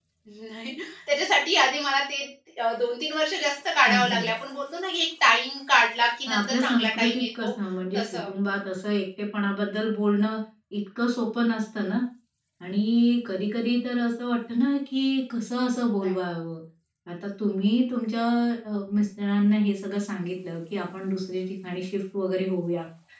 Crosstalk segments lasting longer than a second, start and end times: 6.3-7.5

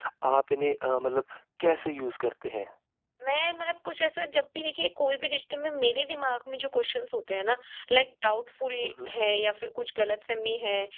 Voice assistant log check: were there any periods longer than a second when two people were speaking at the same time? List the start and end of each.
none

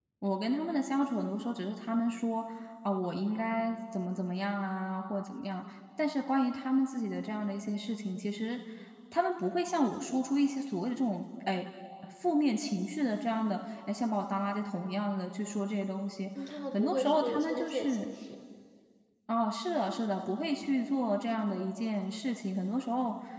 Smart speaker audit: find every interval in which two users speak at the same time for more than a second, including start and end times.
16.7-18.1

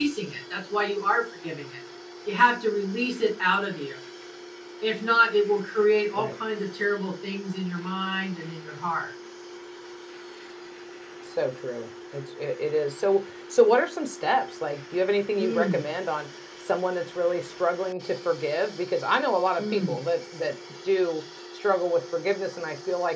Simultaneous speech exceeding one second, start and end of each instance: none

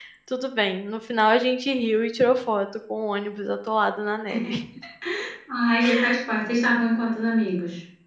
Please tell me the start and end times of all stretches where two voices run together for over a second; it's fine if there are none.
none

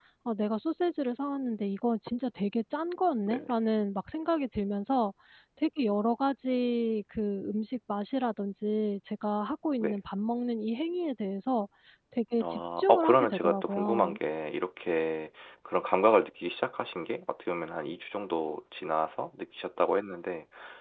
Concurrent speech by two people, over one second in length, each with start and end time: 12.4-14.2

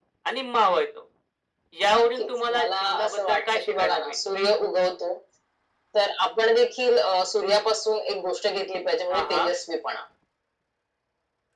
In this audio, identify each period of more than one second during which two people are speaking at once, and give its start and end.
1.9-4.2

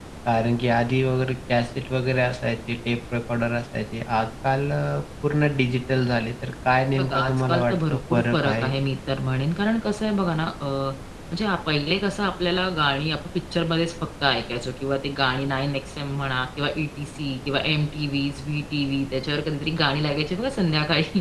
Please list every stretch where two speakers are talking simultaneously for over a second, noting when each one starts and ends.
7.0-8.7

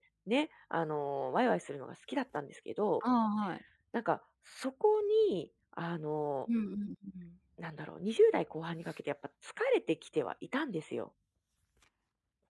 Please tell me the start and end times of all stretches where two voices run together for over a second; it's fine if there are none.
none

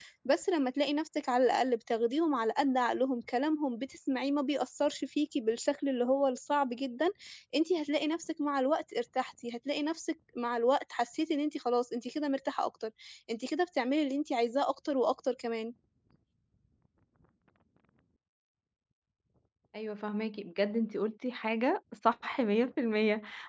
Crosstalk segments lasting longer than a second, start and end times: none

